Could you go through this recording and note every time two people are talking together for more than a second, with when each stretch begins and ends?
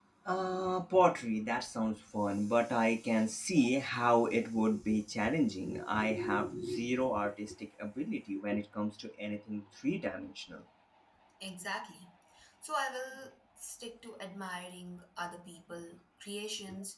none

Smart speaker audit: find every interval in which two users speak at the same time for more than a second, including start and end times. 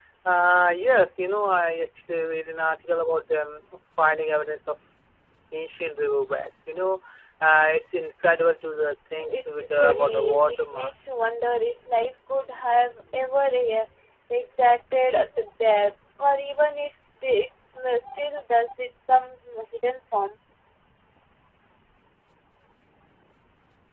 9.3-11.1

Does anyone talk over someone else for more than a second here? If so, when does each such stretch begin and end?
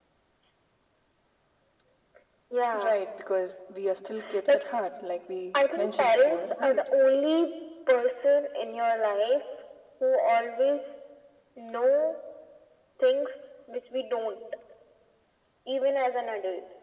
5.5-6.8

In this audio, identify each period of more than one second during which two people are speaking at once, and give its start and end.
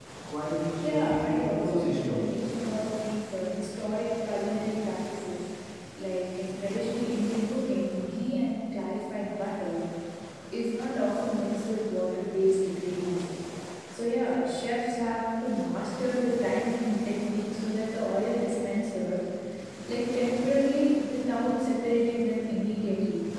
0.8-2.3

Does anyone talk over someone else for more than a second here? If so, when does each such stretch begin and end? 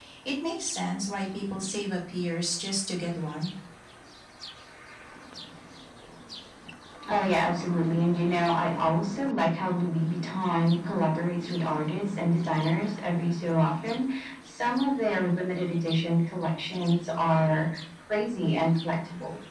none

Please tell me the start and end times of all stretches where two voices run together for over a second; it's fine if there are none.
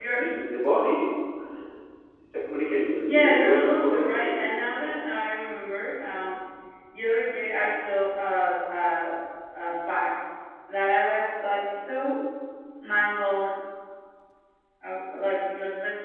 3.1-4.9

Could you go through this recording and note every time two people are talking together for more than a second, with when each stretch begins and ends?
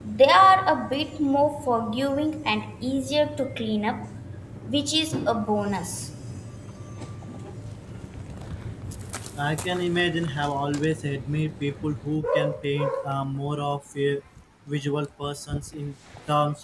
none

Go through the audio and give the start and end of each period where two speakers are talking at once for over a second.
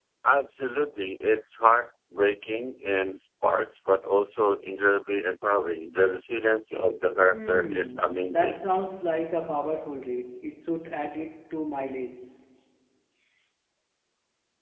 7.3-8.6

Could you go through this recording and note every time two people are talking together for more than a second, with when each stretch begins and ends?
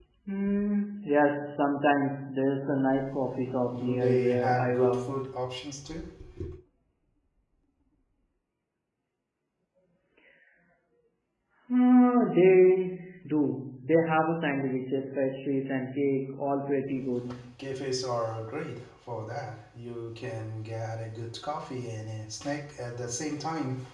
3.7-5.2

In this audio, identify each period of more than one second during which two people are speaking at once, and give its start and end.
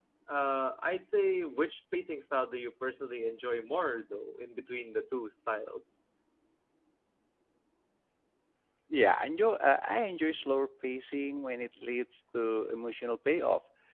none

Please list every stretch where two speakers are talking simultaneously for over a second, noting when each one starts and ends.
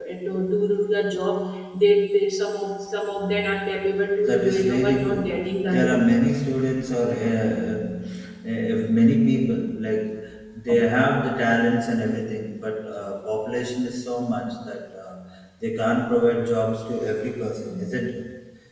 4.2-6.0

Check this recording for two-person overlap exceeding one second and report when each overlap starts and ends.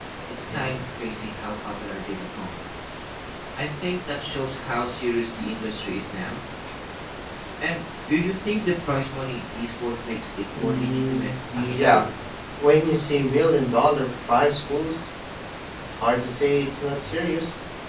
10.6-12.0

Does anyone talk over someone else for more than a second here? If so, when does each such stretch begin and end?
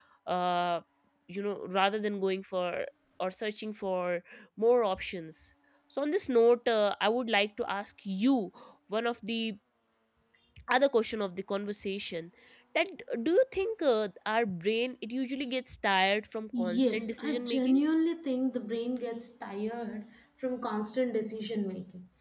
16.6-17.8

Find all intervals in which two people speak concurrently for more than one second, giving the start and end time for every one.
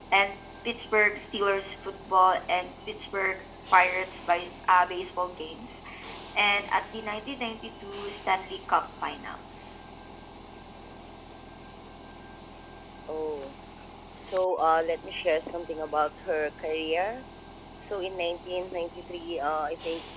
none

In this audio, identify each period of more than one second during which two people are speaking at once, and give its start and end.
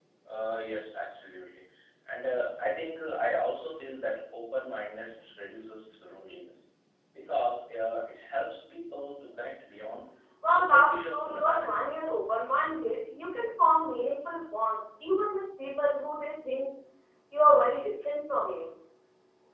10.6-11.9

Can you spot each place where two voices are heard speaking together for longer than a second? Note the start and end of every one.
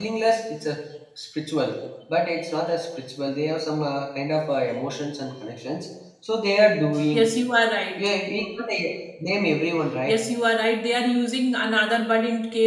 none

